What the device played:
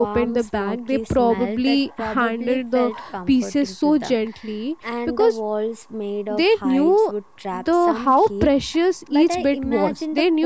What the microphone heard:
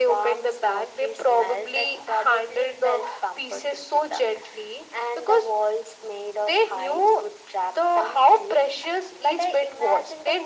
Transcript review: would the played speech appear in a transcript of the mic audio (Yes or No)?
Yes